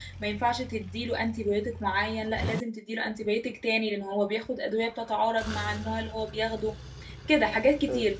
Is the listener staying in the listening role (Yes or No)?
Yes